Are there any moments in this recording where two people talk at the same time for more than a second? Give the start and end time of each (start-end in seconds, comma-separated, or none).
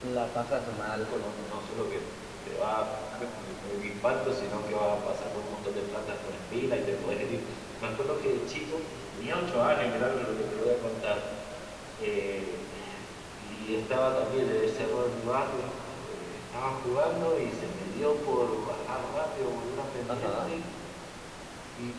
none